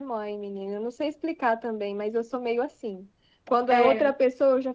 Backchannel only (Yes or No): Yes